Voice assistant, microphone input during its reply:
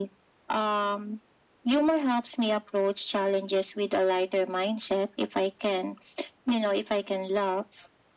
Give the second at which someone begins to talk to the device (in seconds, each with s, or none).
none